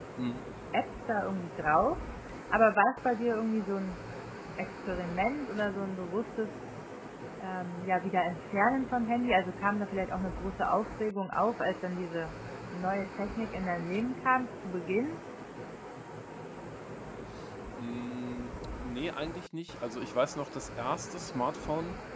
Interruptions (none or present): none